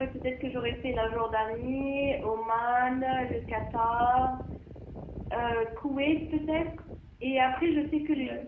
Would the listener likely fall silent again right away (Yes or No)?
Yes